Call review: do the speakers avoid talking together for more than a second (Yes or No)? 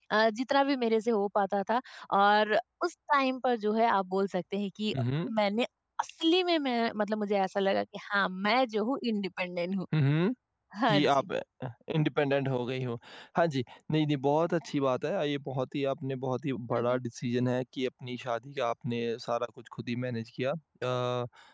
Yes